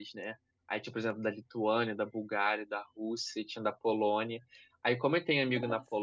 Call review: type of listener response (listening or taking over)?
listening